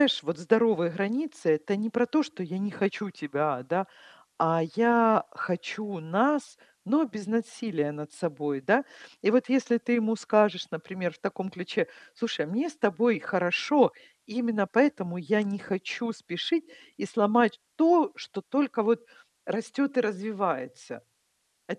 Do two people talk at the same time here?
No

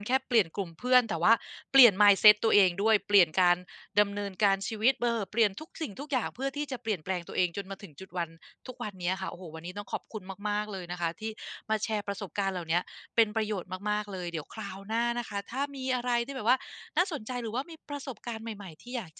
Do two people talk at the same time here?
No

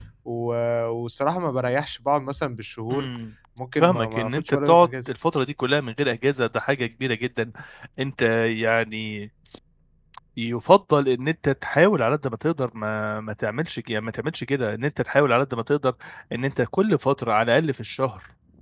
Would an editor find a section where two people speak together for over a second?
Yes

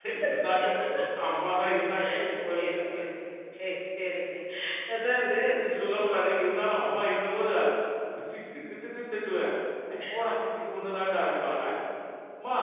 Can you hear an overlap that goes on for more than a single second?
No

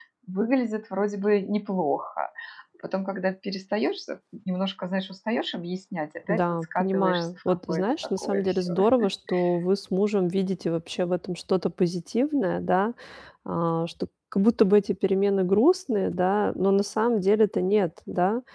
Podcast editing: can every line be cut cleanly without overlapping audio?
No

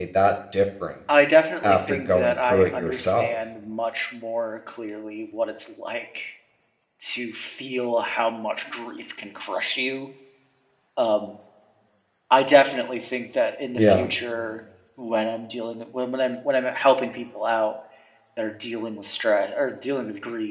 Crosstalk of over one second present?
Yes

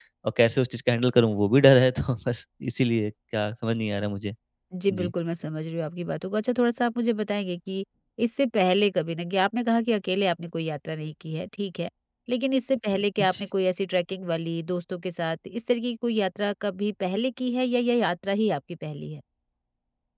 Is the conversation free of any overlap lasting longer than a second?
Yes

